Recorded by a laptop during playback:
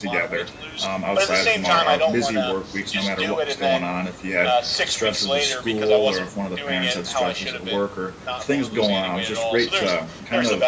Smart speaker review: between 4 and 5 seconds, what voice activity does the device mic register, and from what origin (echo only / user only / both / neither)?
both